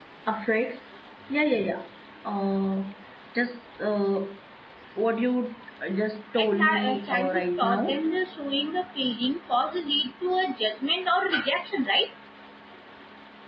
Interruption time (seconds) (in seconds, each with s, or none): 6.4 s